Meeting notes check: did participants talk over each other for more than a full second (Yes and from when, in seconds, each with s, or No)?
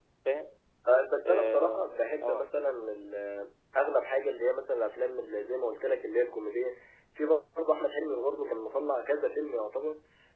Yes, from 1.3 s